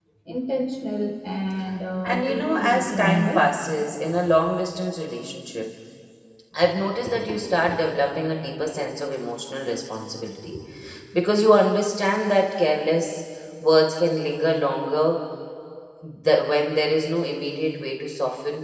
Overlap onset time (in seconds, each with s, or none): 2.0 s